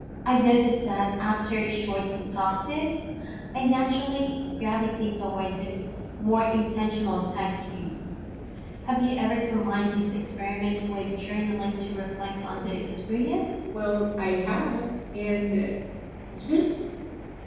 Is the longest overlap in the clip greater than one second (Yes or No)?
No